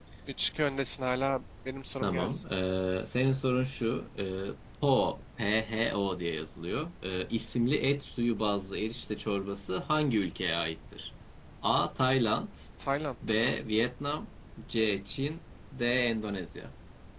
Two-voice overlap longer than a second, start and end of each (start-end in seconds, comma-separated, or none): none